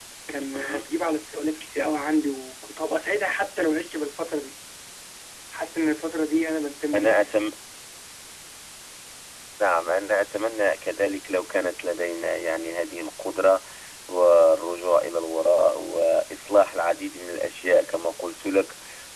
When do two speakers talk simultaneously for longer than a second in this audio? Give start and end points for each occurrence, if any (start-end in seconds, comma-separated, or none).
none